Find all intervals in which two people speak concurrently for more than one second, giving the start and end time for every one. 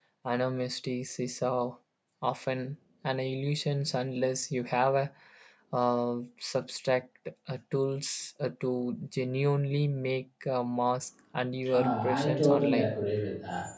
11.7-12.9

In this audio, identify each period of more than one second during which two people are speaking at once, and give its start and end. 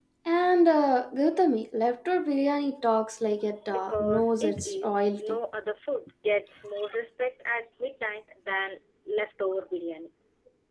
3.7-5.4

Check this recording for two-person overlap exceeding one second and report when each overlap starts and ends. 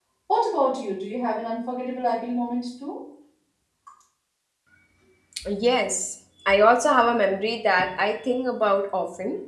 none

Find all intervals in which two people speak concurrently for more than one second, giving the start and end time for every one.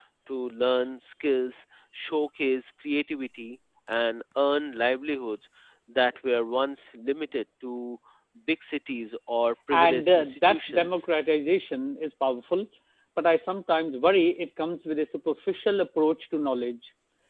9.7-11.0

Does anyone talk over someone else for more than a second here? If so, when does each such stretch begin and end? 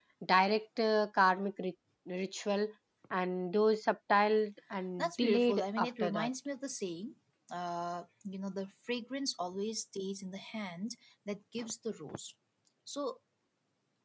5.0-6.3

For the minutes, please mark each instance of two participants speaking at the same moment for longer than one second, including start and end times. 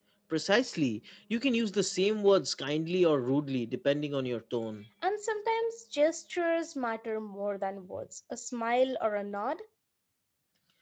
none

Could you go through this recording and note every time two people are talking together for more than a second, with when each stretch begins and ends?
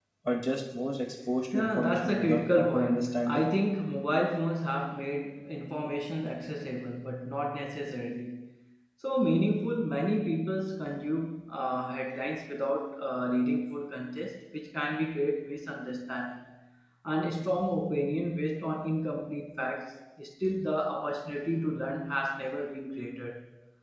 1.5-3.5

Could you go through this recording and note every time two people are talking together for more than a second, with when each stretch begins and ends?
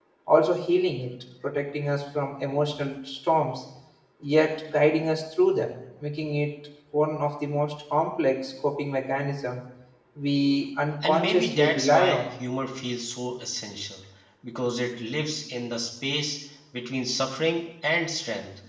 11.0-12.3

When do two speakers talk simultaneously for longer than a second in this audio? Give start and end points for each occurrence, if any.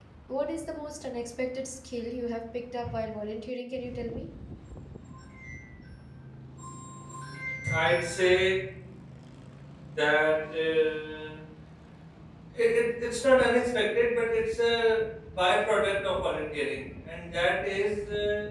none

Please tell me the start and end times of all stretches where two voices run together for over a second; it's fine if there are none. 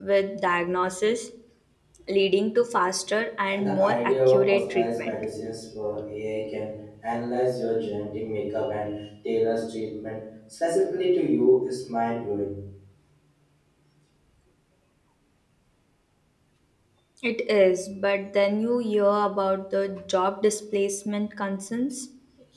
3.5-5.1

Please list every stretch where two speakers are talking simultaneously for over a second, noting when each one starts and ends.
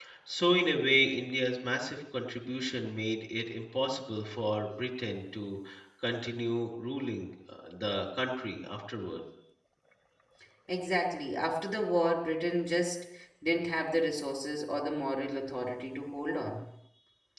none

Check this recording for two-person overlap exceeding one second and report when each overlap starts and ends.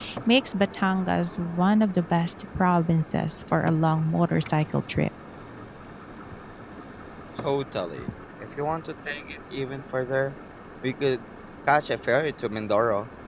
none

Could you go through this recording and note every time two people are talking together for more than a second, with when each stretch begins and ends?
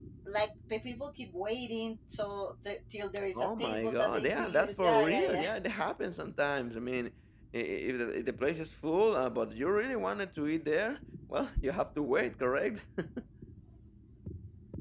3.4-5.5

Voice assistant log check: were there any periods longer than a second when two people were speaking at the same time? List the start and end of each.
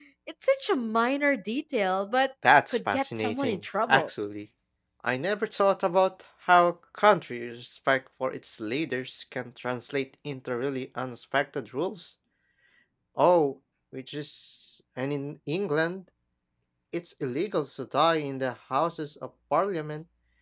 2.7-4.1

